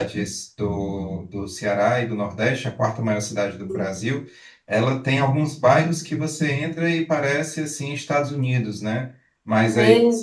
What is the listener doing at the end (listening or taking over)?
listening